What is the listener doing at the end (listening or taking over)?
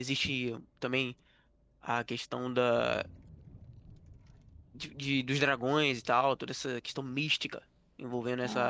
taking over